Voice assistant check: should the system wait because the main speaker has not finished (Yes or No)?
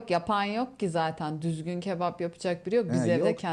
No